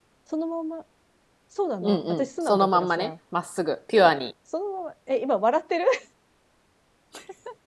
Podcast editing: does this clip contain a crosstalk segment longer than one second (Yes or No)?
Yes